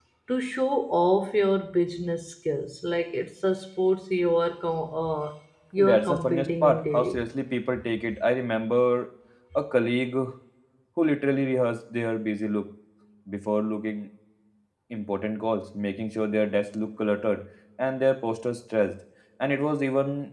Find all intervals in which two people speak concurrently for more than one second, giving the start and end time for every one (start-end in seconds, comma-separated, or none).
5.8-7.2